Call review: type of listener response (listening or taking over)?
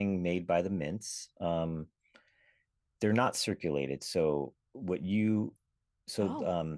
listening